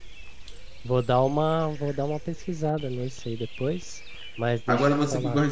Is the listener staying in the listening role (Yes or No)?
No